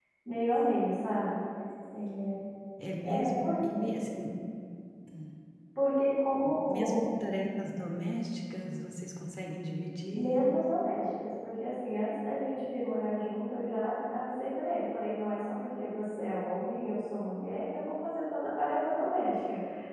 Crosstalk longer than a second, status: none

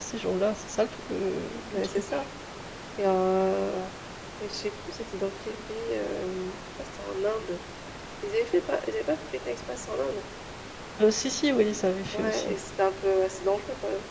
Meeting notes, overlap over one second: none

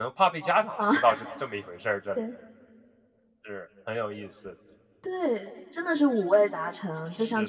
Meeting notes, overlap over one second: none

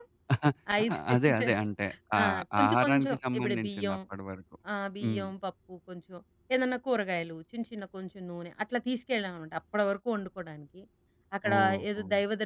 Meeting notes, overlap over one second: present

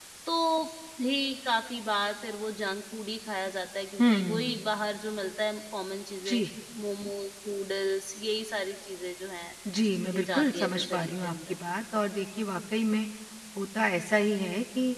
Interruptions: present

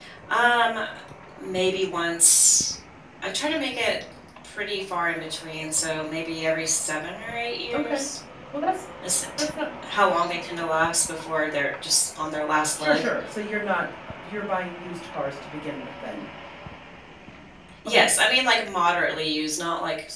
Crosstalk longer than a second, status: none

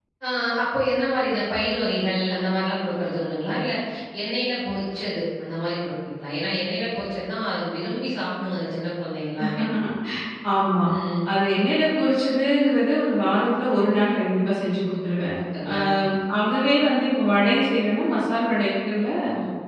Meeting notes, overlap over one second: none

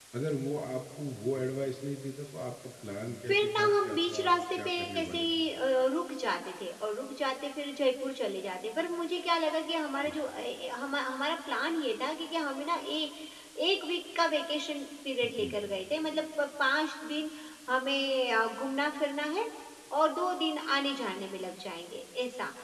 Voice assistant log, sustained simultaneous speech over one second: present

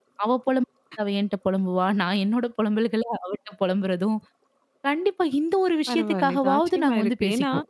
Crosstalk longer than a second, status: present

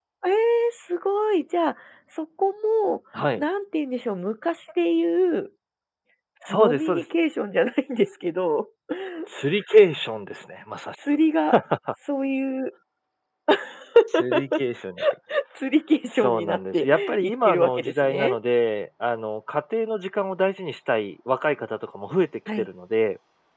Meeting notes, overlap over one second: present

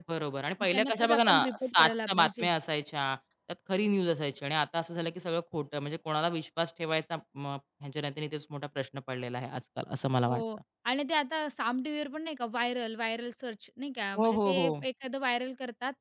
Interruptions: present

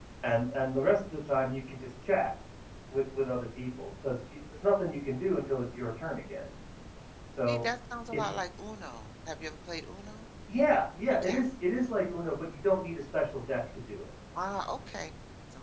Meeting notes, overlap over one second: none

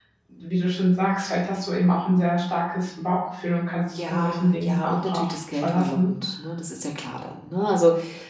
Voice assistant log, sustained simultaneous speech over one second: present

